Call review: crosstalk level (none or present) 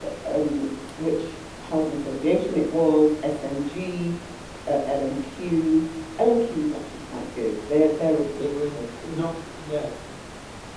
none